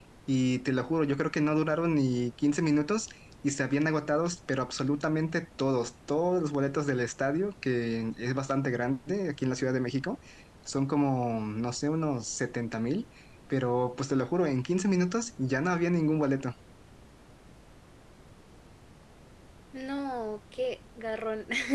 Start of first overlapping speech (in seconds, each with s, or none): none